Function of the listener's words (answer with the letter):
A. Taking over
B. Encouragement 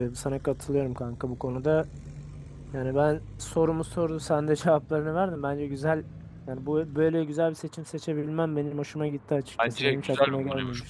A